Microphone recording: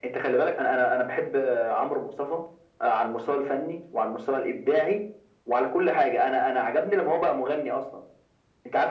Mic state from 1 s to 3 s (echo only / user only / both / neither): echo only